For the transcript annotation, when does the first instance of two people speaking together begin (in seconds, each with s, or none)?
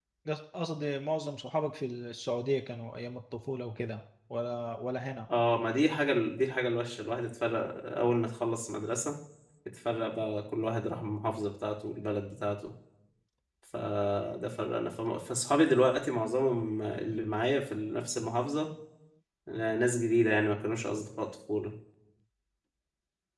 none